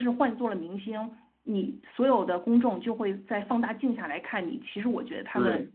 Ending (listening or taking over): taking over